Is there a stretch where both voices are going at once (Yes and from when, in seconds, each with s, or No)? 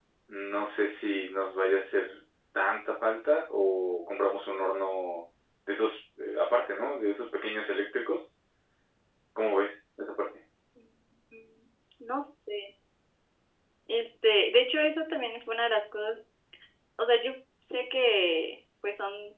No